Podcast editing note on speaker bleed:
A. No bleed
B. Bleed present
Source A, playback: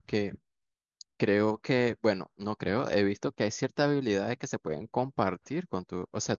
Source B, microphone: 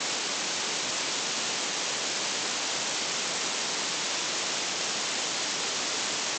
A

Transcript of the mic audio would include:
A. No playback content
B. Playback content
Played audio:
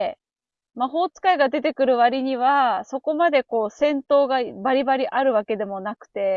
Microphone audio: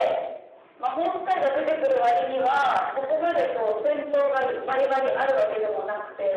B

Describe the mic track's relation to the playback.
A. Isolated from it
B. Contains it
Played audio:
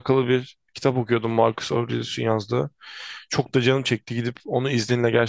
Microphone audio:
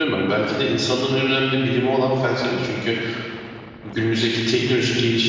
A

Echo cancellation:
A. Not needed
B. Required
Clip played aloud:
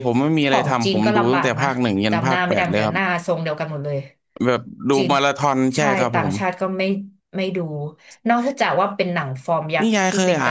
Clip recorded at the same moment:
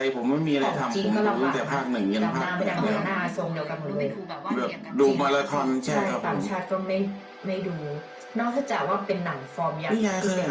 B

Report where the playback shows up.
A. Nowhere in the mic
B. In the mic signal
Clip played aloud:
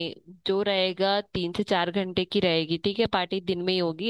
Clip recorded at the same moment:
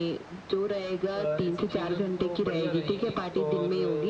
B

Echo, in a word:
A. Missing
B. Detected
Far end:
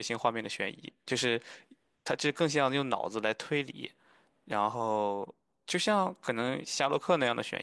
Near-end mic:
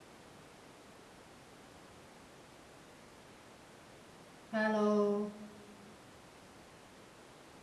A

